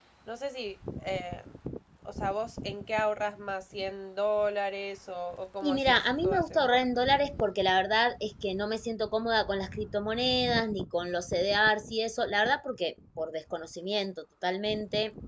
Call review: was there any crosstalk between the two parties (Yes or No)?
Yes